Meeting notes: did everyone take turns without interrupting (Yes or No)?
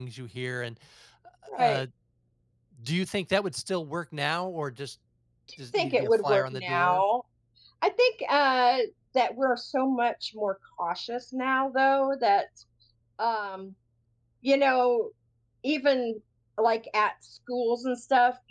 No